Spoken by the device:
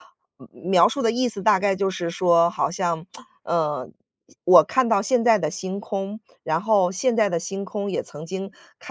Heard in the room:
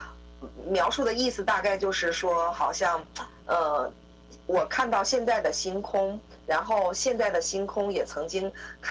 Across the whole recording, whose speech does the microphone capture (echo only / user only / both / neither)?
echo only